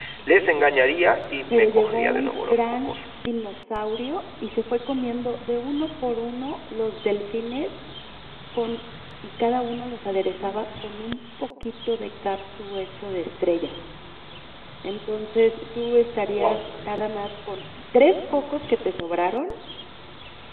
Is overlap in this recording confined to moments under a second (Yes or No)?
No